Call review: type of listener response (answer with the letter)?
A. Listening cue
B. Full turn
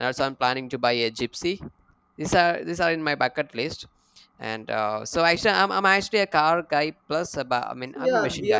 B